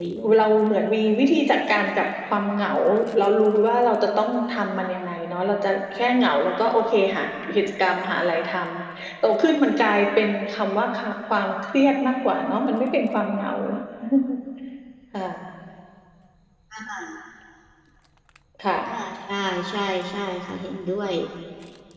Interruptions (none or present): none